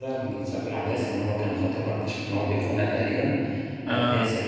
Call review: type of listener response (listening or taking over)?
listening